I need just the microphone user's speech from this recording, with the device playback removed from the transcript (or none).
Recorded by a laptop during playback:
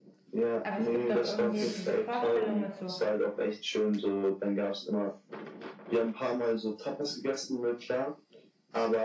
aber es gibt doch irgendwie diese Vorstellung mit so